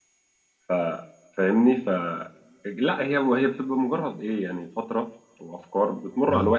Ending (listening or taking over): listening